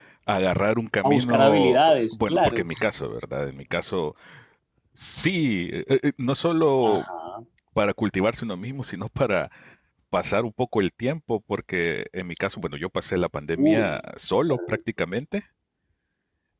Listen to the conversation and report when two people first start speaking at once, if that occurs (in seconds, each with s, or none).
1.0 s